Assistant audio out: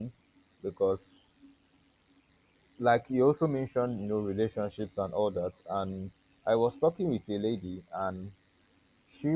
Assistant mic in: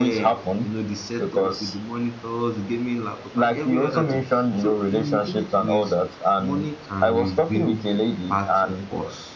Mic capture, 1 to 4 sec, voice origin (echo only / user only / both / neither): both